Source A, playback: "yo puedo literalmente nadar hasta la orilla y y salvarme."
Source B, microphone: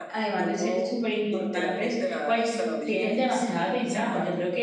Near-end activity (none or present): present